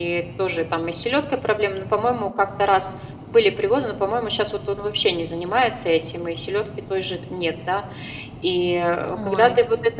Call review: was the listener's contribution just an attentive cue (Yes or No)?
Yes